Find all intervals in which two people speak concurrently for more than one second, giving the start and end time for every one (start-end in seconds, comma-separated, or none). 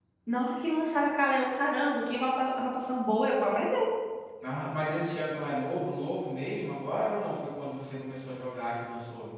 none